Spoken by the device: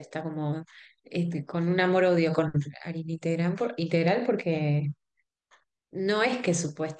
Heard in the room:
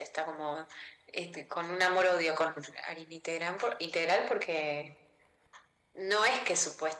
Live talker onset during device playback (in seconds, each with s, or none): none